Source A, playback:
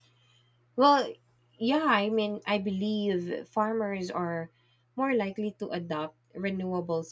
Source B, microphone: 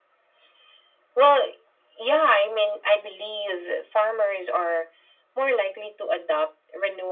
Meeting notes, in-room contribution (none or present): none